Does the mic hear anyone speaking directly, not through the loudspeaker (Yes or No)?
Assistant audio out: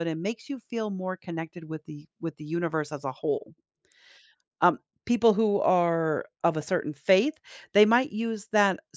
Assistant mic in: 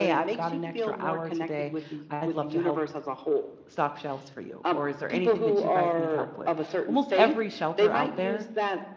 Yes